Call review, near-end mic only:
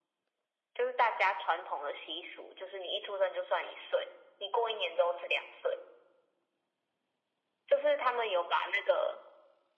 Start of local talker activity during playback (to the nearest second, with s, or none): none